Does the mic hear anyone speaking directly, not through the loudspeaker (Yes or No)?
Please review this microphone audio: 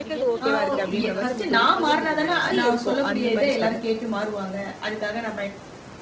Yes